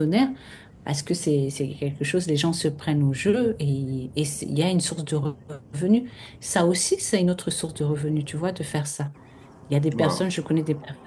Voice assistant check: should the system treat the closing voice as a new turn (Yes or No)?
No